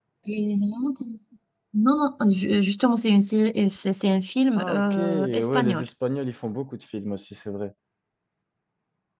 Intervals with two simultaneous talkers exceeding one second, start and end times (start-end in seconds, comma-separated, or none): 4.6-5.8